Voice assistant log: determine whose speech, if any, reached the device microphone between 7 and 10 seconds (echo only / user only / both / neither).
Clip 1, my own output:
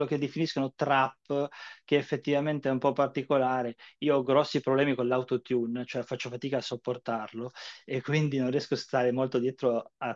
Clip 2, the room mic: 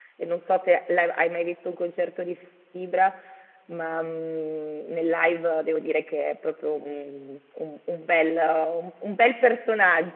user only